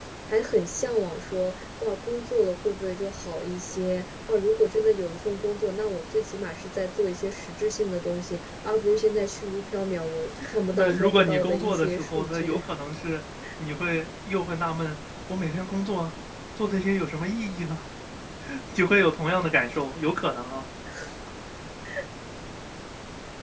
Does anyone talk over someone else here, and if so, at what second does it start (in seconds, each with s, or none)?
10.7 s